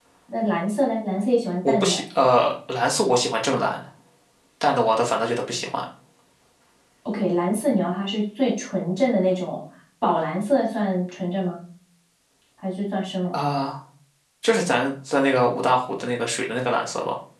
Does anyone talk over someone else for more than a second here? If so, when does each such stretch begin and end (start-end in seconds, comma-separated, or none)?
none